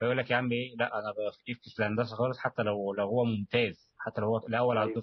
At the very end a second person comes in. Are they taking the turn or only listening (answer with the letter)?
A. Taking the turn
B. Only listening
B